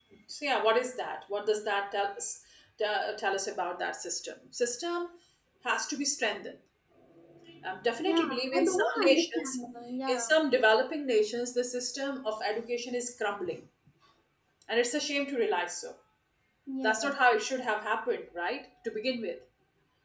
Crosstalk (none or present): present